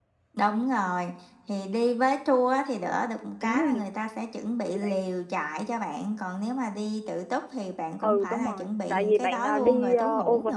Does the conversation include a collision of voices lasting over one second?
Yes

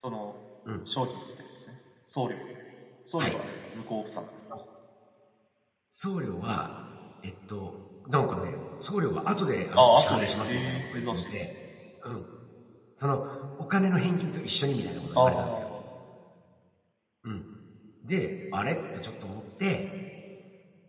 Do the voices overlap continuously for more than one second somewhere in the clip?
Yes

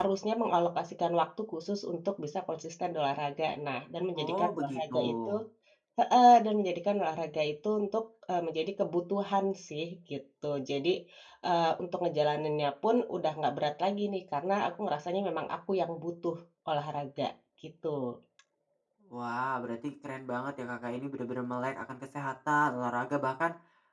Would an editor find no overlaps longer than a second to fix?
No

